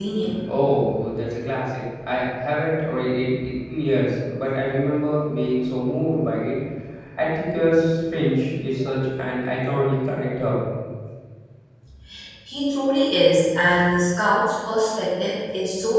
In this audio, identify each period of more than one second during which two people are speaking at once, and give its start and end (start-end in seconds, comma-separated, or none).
none